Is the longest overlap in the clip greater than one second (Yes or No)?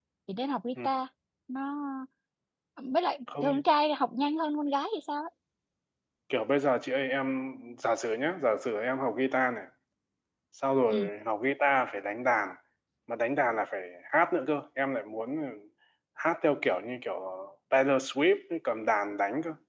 No